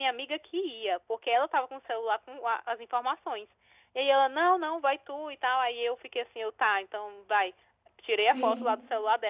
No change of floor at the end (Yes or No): Yes